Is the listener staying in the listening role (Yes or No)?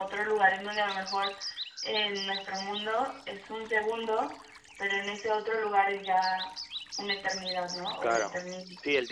No